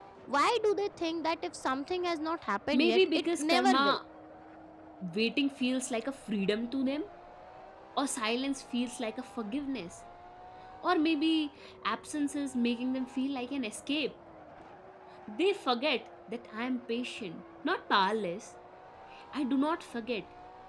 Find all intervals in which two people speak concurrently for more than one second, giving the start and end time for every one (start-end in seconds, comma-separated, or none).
2.7-4.0